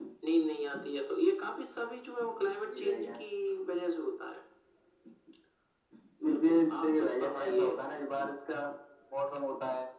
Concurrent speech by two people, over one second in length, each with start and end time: 6.2-7.7

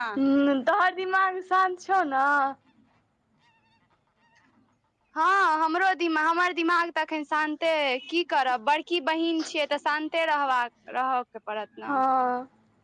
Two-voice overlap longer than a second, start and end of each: none

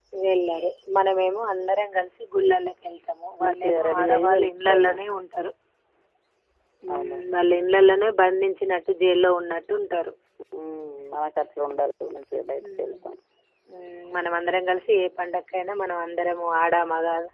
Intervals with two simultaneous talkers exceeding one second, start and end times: 3.5-4.9

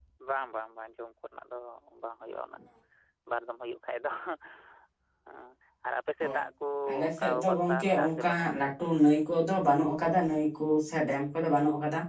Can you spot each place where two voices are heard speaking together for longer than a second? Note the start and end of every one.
7.0-8.5

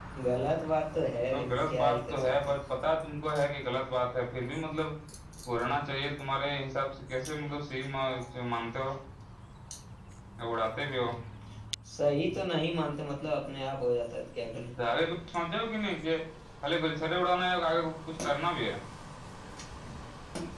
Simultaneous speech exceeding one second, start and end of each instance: 1.3-2.6

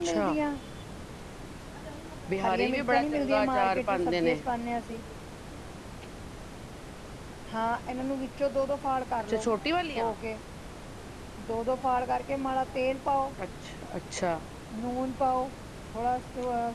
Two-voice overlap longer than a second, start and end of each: 2.4-4.4

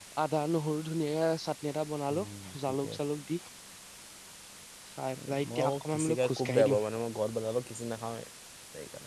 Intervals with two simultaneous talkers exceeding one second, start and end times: 5.3-6.8

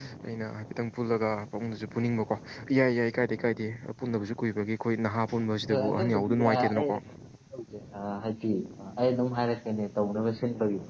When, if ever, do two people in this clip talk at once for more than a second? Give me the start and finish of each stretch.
5.7-6.9

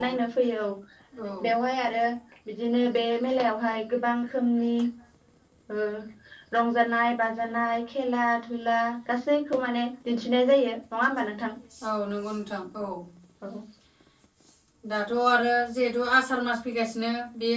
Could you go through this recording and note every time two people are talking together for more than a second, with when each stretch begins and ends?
none

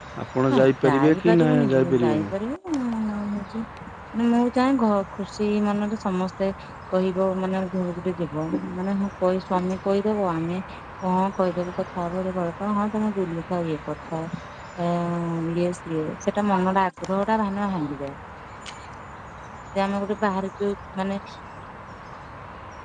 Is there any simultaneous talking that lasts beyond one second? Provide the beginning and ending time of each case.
0.5-2.3

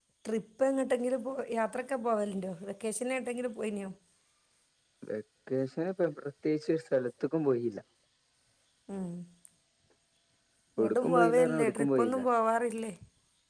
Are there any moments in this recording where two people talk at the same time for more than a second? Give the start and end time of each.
10.8-12.2

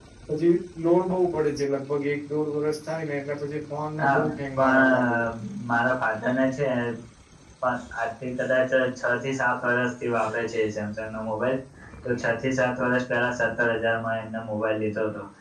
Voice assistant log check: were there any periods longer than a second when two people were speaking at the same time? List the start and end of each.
4.0-5.2

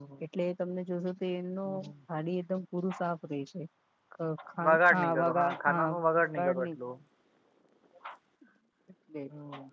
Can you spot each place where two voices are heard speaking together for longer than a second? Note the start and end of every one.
4.7-6.7

